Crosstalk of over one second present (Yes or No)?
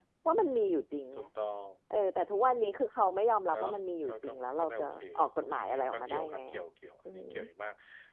Yes